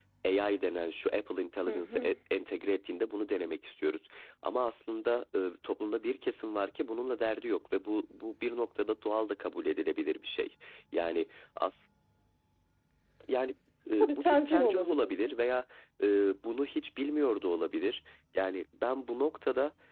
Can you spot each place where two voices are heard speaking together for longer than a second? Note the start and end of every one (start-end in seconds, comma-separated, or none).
14.0-15.3